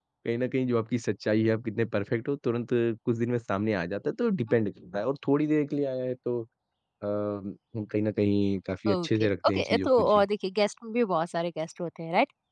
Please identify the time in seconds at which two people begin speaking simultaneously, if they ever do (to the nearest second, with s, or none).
9 s